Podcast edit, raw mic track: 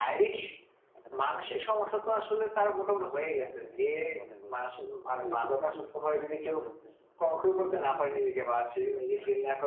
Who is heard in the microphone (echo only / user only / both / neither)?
both